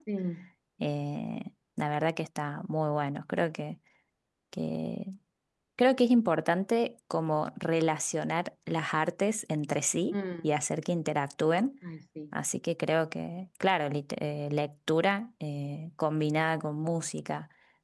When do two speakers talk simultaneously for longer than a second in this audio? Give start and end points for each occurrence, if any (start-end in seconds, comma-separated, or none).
none